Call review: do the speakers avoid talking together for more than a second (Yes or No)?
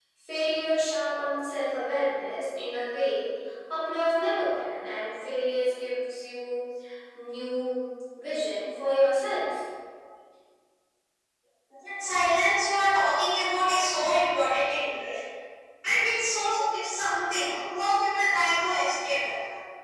Yes